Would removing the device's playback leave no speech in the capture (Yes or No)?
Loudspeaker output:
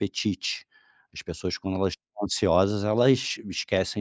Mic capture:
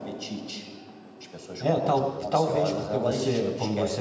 No